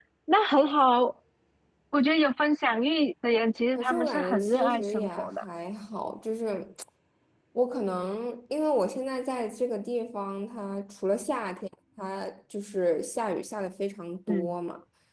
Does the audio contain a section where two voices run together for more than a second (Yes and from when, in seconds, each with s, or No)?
Yes, from 3.8 s